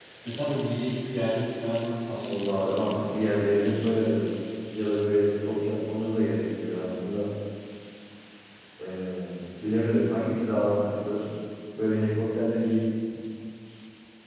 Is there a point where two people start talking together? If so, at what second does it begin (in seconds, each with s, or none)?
2.2 s